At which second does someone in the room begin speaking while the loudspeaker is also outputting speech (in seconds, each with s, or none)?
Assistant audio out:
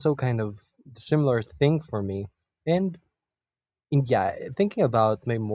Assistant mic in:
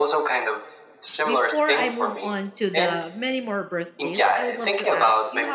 1.2 s